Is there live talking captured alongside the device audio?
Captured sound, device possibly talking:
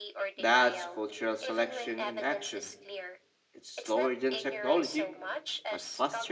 Yes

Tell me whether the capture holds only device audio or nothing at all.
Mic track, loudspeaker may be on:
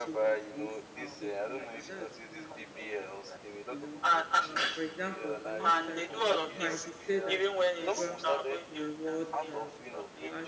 No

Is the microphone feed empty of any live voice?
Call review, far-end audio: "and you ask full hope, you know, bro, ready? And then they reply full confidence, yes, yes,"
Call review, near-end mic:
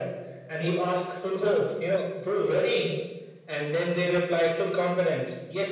Yes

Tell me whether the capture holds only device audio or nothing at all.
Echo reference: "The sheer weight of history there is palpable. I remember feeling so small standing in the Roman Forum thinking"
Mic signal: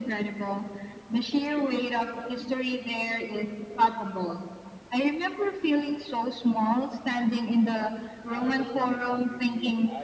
No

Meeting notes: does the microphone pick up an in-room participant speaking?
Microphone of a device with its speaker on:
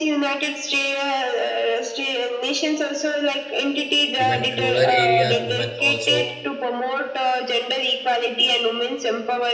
Yes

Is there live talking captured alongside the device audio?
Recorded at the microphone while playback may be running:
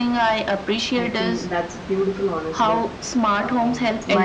Yes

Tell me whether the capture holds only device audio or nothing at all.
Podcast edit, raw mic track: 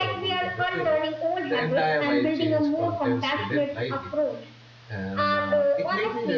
No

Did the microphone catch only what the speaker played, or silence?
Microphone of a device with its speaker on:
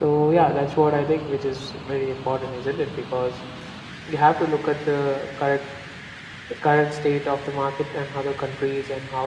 Yes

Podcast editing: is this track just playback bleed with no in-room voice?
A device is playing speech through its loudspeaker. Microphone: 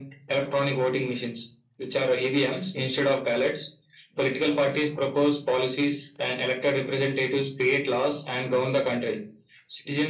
Yes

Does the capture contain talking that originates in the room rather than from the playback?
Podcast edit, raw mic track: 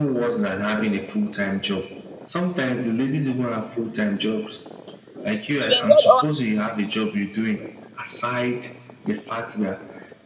Yes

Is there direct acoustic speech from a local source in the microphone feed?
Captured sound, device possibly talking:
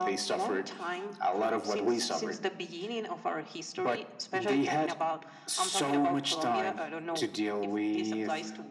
No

